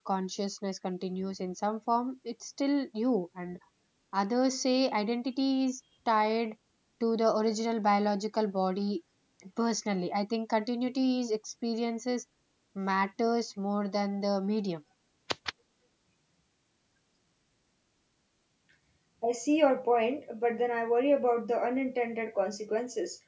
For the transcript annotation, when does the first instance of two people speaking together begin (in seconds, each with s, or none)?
none